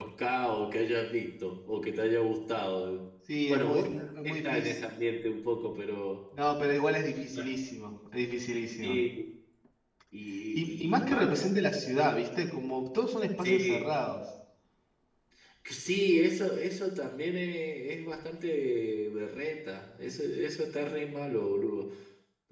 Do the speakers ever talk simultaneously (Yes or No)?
Yes